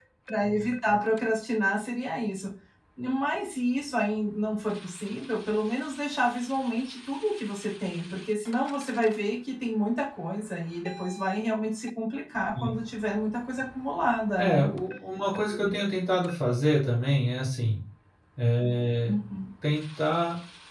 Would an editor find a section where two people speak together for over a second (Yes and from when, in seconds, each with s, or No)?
No